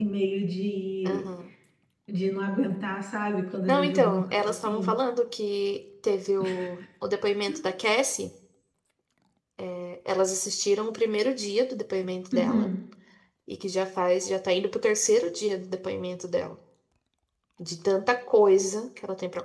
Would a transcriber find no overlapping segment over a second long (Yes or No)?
No